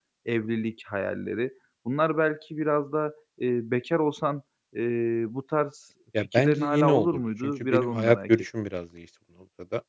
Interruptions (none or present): present